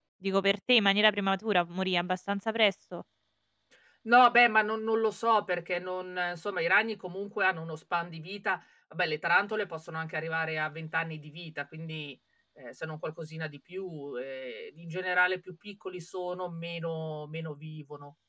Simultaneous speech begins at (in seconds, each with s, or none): none